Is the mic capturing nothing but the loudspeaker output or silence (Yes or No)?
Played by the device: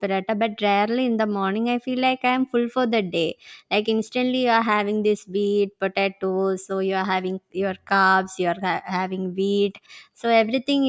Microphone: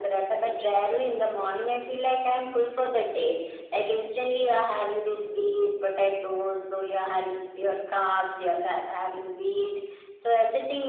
Yes